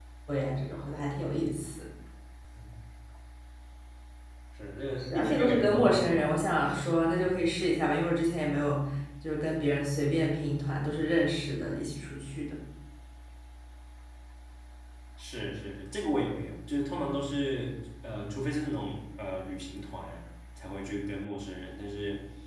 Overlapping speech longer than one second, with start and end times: 5.0-6.3

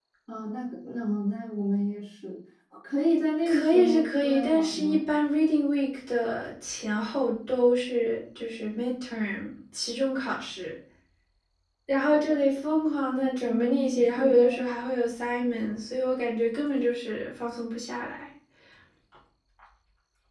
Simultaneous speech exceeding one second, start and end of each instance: 3.5-5.1, 13.2-14.6

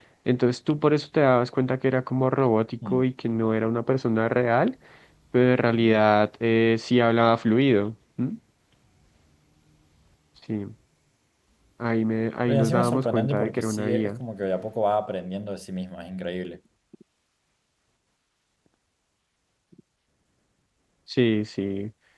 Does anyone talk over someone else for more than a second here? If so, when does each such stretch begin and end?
12.5-14.1

